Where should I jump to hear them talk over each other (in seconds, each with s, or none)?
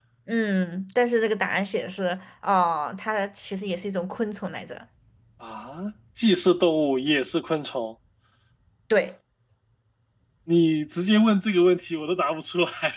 none